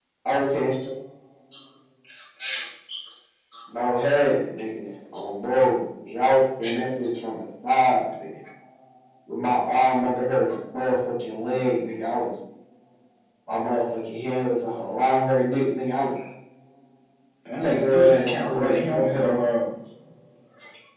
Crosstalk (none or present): present